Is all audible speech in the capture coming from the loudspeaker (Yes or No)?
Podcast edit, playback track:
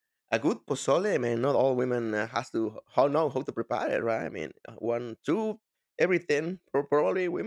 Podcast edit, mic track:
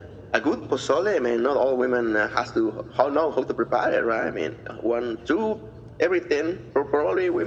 Yes